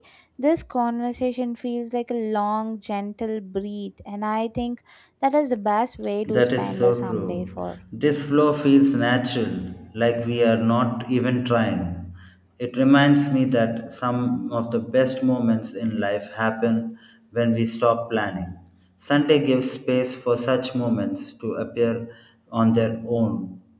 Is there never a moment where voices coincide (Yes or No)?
No